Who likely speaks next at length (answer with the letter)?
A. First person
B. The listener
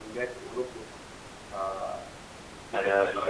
B